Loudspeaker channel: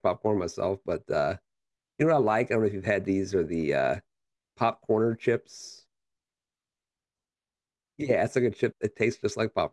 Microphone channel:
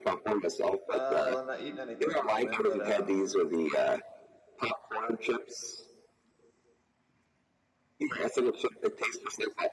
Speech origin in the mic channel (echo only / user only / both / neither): both